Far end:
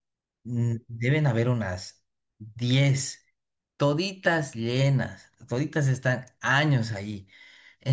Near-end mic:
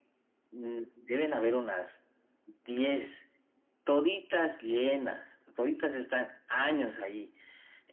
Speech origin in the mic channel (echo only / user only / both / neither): echo only